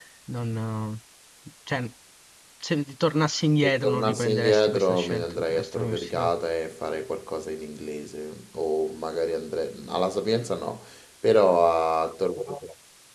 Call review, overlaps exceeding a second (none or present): present